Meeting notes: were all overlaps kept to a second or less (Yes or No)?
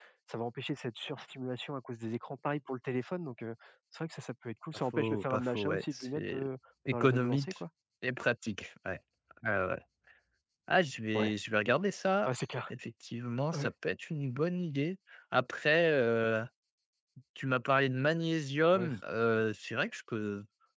No